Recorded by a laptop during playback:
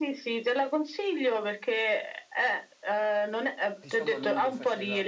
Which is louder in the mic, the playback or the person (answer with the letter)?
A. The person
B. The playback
B